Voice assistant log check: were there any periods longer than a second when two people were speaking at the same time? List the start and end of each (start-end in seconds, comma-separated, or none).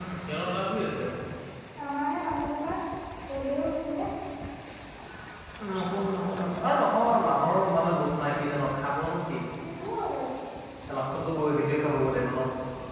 none